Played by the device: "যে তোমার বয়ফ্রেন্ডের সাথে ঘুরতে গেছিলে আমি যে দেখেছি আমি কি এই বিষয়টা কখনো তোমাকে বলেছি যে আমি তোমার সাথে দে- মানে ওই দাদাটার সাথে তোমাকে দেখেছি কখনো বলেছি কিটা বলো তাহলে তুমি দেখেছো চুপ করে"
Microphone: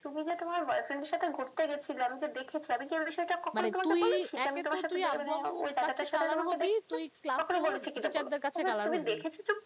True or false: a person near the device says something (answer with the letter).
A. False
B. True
B